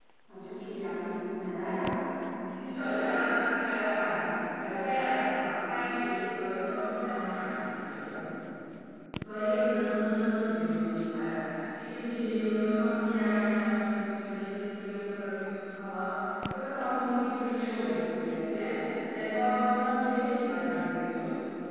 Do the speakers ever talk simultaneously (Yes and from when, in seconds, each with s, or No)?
No